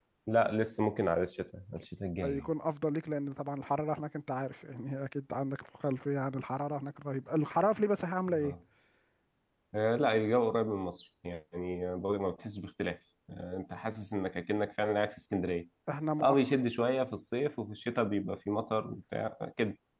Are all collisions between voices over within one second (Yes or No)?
Yes